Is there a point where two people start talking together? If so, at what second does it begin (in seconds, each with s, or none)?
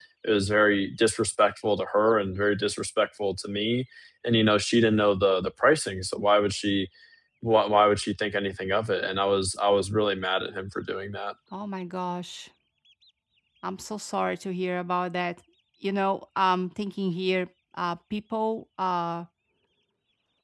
none